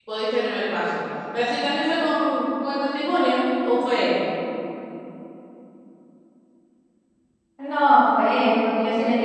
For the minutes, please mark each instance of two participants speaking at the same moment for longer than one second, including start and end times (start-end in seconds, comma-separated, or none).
none